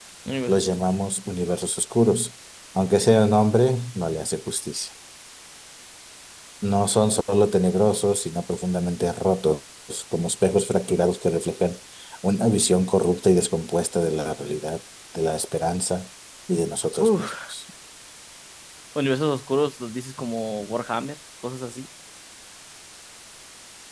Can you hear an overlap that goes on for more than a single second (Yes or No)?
No